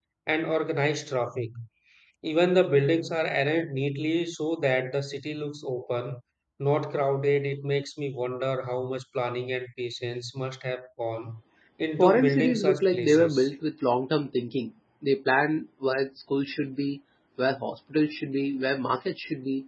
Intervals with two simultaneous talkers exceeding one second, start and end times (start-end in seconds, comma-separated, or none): 12.0-13.5